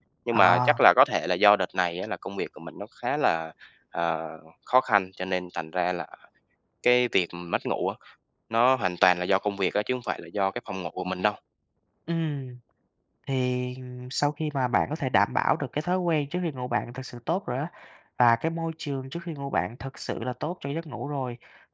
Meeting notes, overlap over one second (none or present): none